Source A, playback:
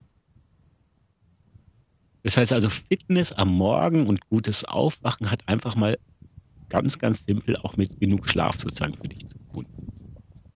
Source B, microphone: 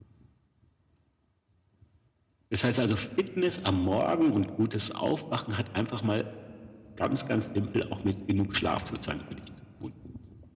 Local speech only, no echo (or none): none